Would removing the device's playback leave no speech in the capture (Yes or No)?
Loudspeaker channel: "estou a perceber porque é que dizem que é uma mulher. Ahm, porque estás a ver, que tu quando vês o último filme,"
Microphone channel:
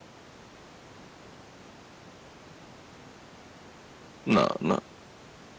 No